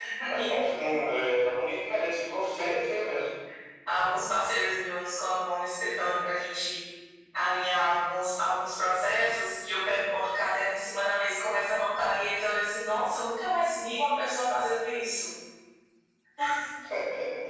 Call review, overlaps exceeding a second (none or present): none